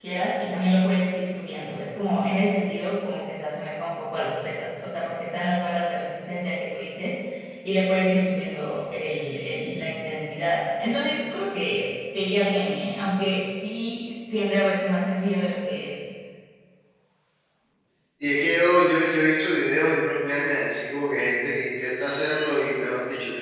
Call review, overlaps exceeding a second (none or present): none